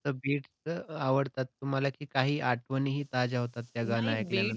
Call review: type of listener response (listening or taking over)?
taking over